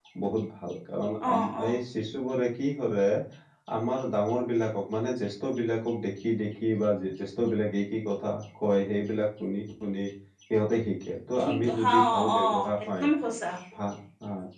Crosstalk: present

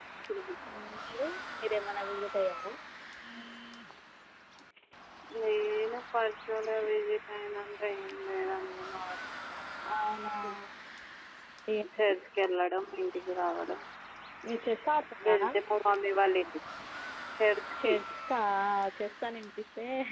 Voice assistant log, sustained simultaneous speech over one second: none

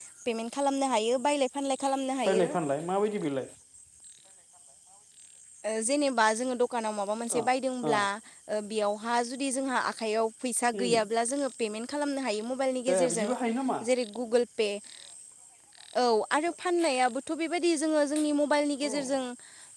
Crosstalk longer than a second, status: none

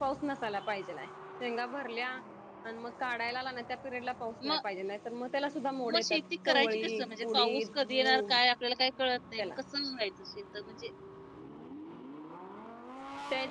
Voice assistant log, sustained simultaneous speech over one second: present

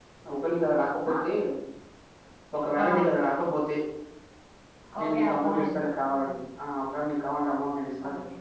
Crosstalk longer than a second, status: present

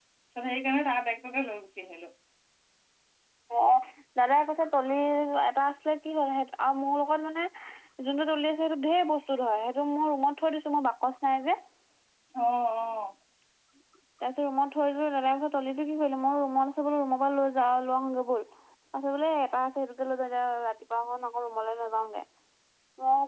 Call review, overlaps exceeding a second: none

